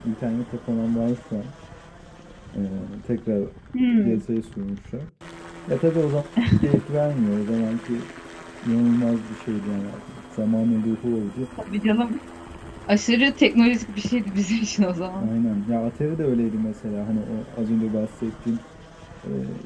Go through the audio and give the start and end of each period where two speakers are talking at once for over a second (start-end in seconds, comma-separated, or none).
none